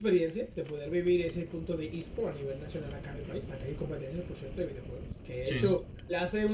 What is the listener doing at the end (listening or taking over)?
listening